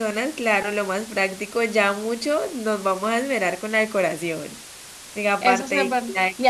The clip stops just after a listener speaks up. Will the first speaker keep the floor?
No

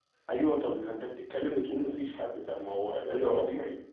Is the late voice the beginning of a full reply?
No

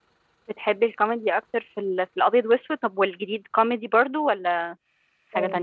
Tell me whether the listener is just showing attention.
No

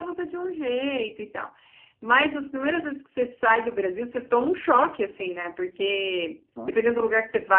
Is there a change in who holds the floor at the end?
No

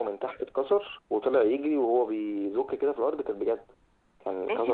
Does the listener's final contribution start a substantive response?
Yes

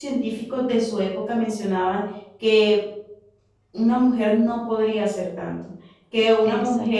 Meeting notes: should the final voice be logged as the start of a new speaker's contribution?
No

